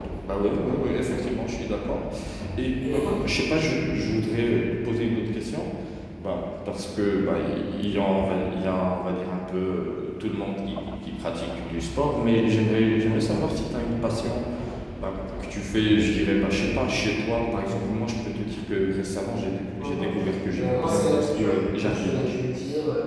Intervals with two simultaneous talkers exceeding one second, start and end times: 20.6-22.4

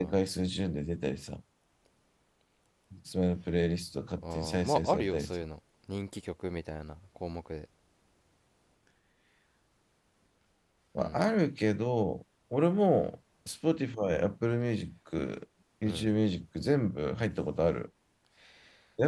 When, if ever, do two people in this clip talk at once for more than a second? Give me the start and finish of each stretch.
4.2-5.4

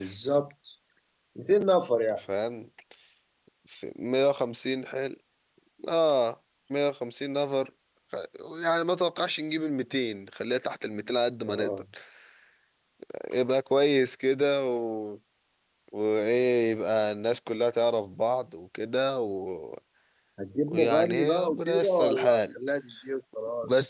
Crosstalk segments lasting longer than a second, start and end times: 20.7-22.4

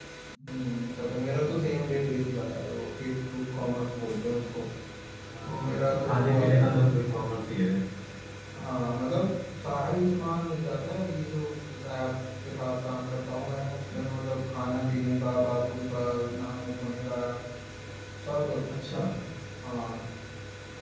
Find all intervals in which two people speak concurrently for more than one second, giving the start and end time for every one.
5.5-6.7

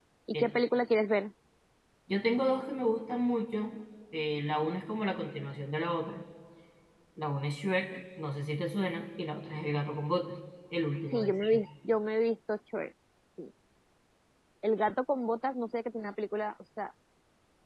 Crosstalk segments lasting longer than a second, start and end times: none

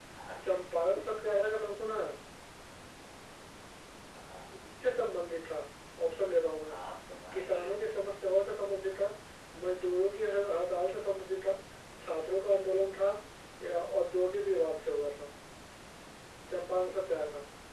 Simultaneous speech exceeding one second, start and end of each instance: none

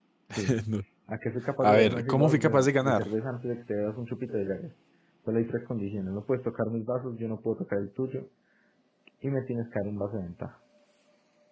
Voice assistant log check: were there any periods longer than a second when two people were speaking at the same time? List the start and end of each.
1.6-3.1

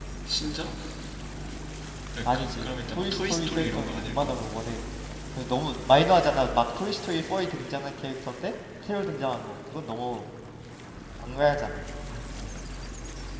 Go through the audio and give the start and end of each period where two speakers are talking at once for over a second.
2.3-4.5

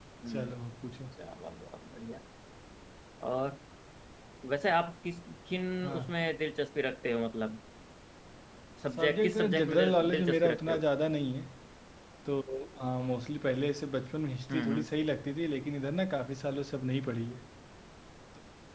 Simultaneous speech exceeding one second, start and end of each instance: 9.0-10.8

